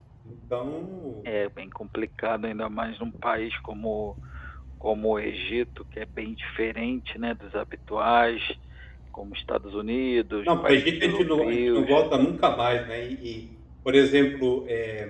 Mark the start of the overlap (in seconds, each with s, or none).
10.4 s